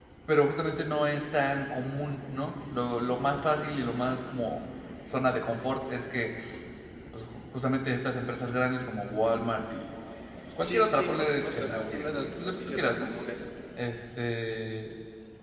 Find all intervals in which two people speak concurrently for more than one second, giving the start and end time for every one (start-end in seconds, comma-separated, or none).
10.6-13.1